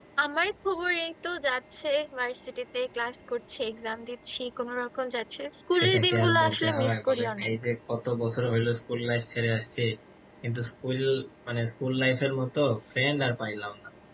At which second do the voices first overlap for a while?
5.7 s

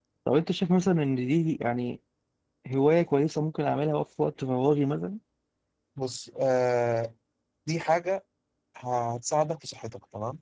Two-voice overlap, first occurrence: none

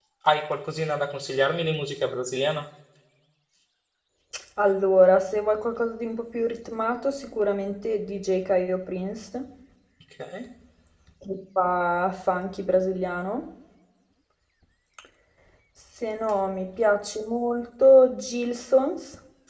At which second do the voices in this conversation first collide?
none

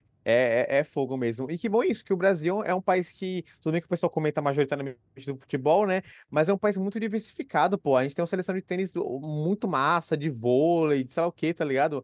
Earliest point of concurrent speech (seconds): none

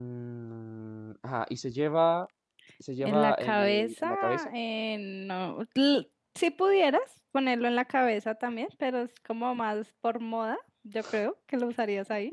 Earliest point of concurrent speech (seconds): 3.0 s

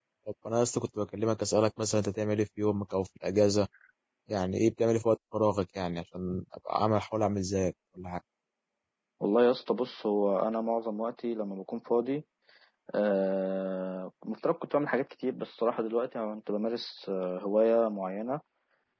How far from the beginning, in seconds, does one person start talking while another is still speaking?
none

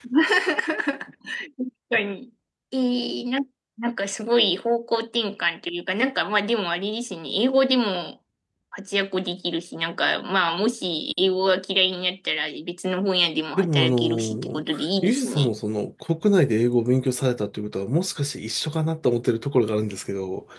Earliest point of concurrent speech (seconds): 13.6 s

